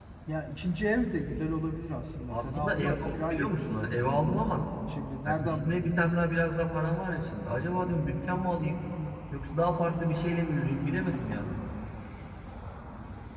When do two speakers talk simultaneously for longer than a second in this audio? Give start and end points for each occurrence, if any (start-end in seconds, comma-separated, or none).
2.3-3.9